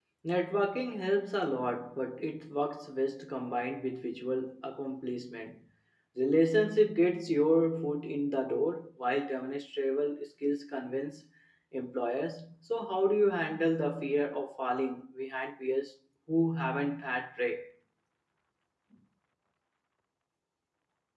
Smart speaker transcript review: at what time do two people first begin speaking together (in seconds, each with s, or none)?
none